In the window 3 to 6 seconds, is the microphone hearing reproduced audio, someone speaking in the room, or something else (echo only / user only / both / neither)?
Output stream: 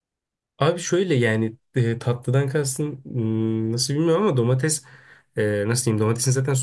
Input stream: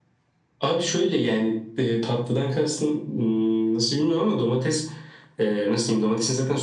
echo only